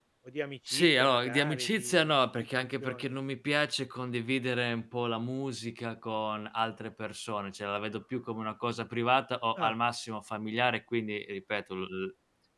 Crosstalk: present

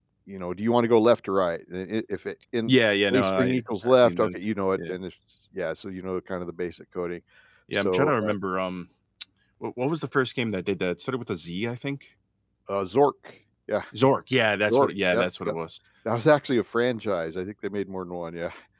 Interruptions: present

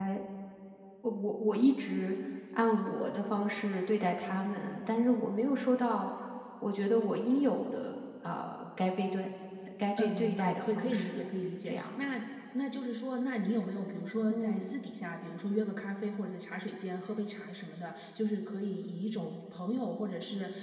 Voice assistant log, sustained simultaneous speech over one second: present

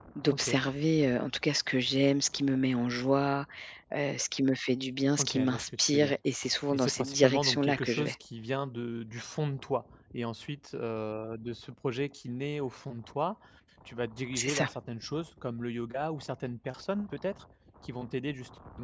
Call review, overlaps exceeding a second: present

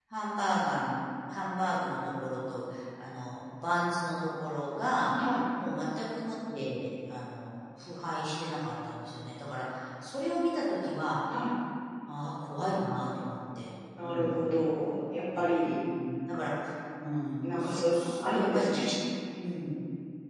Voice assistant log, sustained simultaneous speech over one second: present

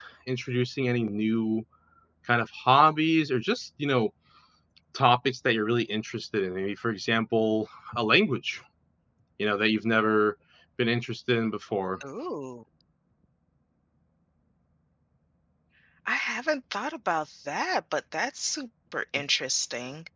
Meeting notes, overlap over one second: none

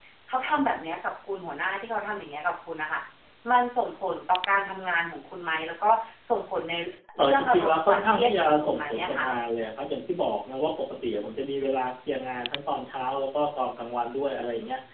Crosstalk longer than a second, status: present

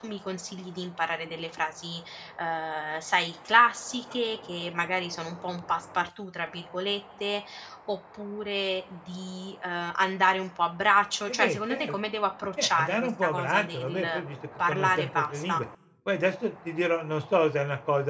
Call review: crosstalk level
present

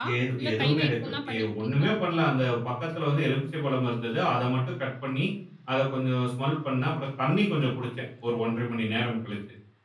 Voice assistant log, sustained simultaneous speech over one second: present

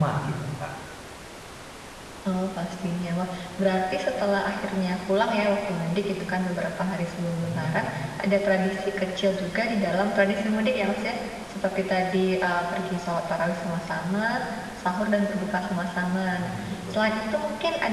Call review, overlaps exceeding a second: none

